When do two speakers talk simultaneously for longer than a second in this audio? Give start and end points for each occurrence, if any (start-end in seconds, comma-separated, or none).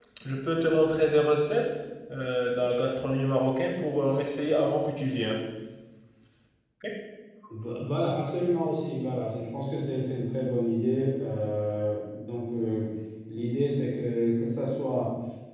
none